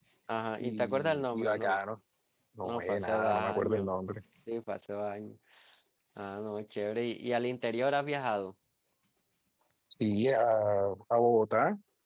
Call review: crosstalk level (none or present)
present